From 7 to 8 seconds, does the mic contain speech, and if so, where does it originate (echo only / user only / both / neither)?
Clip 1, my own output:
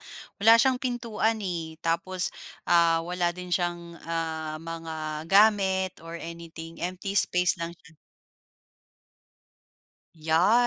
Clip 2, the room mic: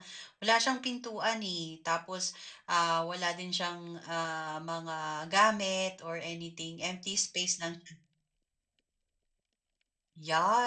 echo only